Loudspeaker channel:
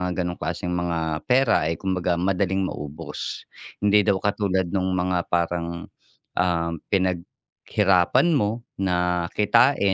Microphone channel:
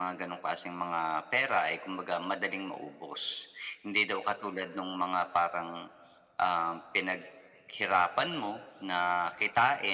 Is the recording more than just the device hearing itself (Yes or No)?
No